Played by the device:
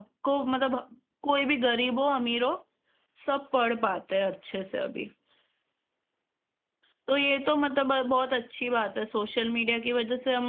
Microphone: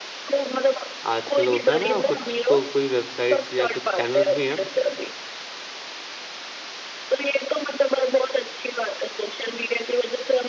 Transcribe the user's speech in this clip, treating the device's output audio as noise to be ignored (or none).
आजकल होता है ना कुछ तो कोई वेबसाइट्स या कुछ चैनल्स भी हैं